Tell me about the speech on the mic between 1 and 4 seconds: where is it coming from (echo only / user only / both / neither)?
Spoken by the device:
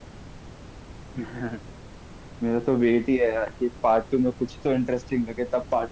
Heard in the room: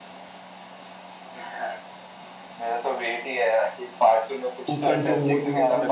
echo only